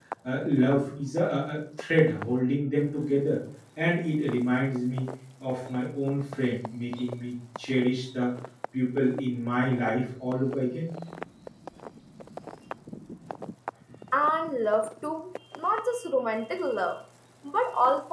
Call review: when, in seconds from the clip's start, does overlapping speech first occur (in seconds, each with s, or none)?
none